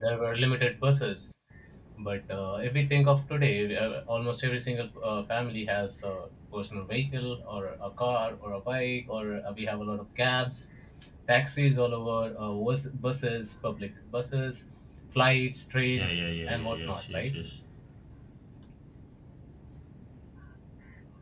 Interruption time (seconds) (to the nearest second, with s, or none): 16 s